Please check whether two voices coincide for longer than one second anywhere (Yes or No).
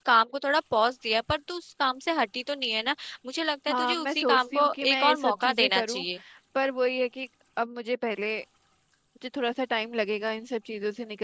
Yes